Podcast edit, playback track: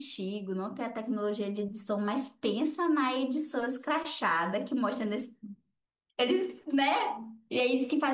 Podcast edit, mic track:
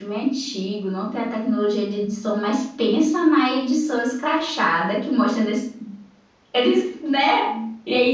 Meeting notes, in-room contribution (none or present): none